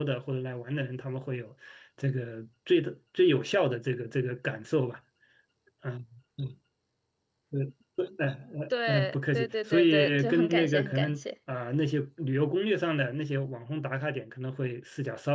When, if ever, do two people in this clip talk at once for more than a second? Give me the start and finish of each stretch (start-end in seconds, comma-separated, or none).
8.9-11.2